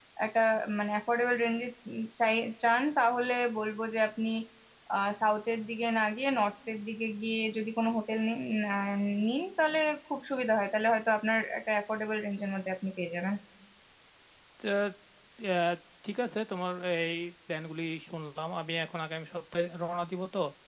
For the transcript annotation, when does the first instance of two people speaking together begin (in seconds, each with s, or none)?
none